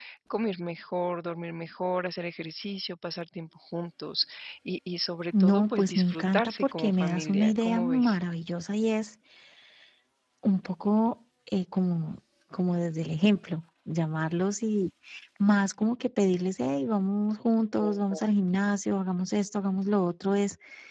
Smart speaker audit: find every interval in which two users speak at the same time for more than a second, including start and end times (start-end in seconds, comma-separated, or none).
5.4-8.2